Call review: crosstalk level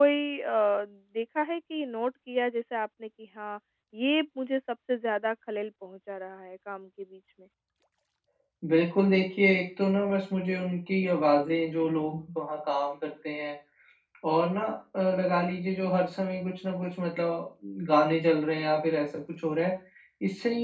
none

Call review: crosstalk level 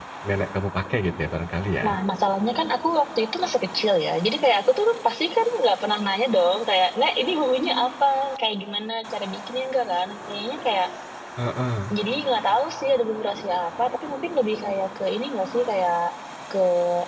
none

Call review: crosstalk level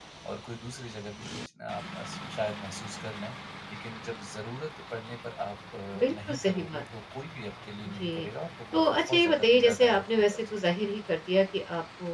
present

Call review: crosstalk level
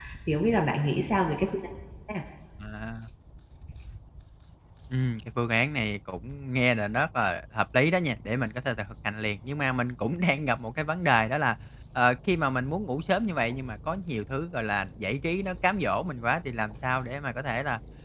none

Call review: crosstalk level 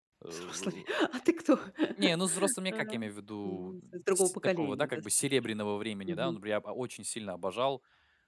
present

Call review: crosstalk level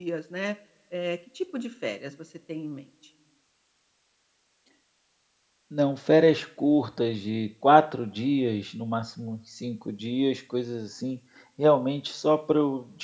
none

